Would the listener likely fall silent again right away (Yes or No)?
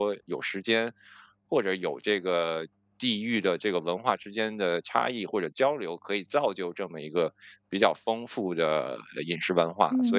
No